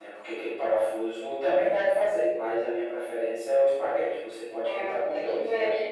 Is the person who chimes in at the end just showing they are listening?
No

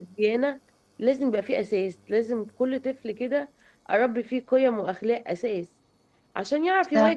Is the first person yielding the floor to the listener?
No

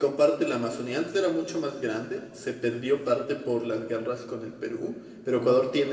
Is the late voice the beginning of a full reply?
No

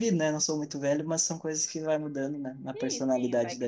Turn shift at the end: Yes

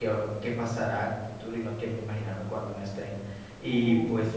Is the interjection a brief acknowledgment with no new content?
Yes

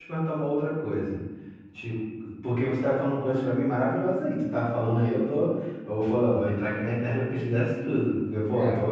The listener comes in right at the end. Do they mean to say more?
No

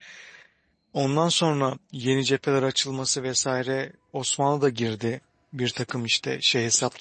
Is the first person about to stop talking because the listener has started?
Yes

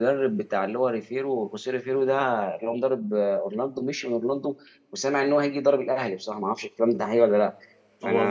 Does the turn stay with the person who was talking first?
No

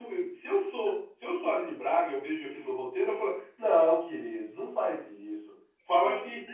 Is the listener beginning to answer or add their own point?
No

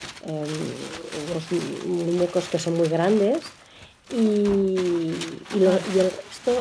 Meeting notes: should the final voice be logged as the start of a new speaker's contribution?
No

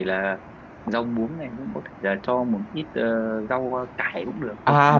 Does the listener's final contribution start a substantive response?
Yes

